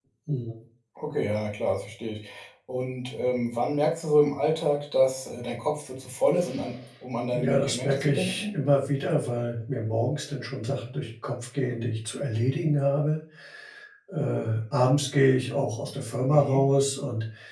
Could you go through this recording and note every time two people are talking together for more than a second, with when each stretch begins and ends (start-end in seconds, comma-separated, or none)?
7.3-8.6